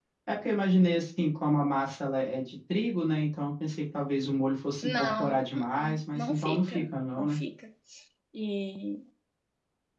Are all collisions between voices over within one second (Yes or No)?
No